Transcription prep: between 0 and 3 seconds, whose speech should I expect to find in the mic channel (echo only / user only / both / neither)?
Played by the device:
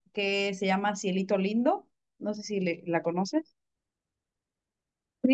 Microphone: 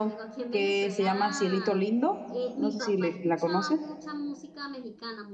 both